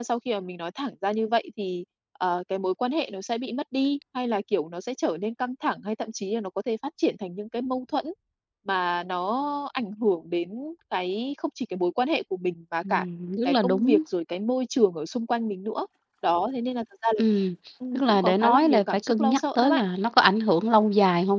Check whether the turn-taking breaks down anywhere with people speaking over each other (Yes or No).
Yes